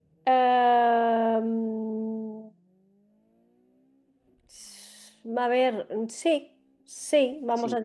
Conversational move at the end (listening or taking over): taking over